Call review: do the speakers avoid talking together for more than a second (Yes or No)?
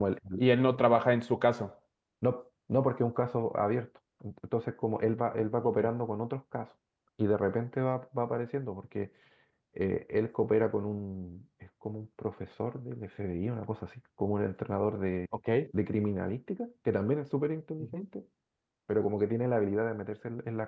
Yes